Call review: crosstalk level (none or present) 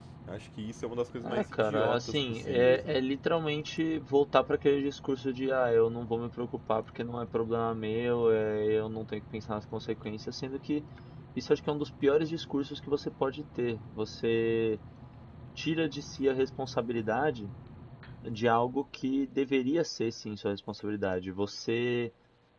present